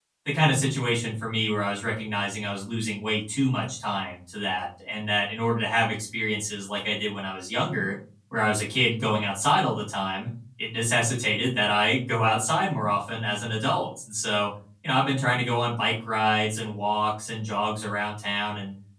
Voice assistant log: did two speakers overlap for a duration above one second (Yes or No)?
No